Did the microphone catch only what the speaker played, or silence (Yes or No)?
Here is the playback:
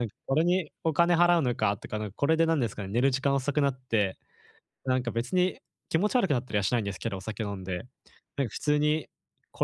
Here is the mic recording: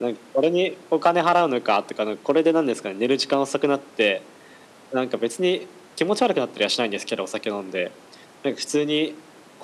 Yes